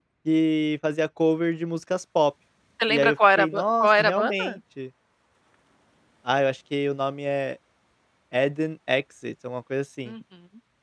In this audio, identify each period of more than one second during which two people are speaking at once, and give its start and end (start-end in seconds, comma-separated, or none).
2.9-4.5